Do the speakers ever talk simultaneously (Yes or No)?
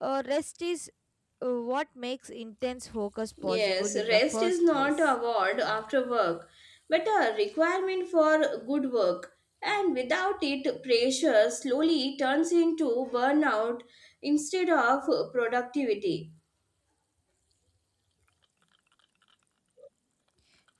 Yes